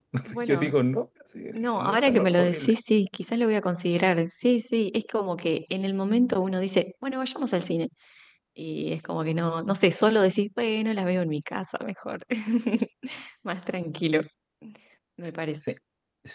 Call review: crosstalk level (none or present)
present